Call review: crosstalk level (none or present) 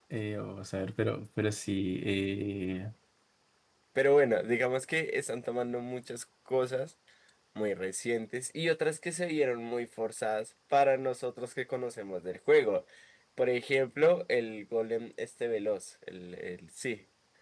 none